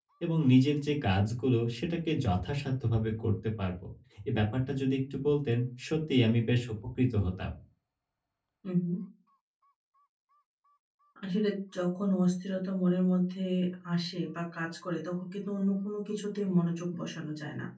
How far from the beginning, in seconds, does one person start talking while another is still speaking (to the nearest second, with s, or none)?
none